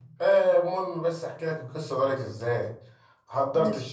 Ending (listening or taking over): listening